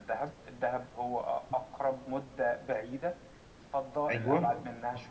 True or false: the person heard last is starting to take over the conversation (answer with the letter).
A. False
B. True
A